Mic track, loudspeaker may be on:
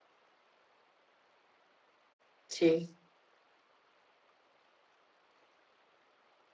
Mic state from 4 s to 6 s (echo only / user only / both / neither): neither